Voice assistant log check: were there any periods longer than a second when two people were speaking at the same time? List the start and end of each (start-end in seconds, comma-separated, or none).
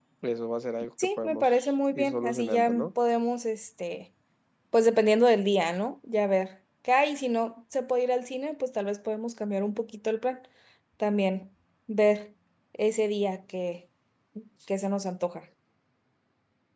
1.2-2.9